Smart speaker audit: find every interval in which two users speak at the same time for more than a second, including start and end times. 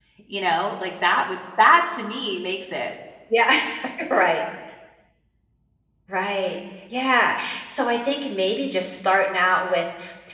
none

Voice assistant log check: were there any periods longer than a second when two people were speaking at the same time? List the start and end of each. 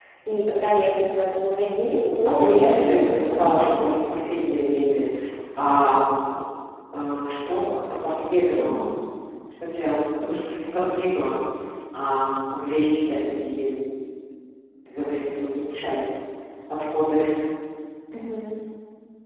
2.2-3.9

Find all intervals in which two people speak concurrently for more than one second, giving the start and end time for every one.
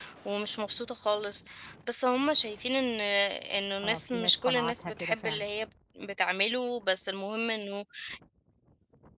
3.8-5.5

